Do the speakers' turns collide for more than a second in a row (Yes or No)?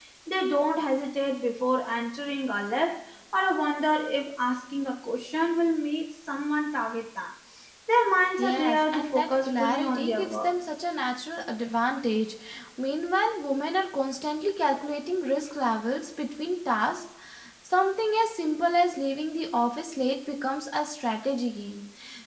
Yes